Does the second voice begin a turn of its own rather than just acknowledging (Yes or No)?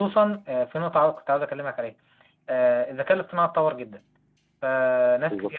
No